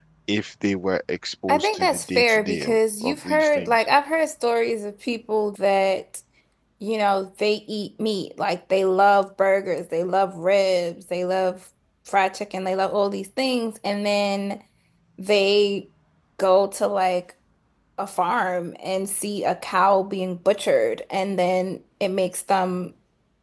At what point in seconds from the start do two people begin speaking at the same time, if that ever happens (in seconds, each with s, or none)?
1.5 s